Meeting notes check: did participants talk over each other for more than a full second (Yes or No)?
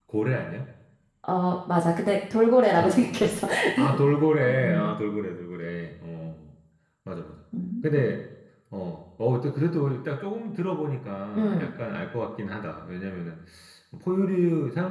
No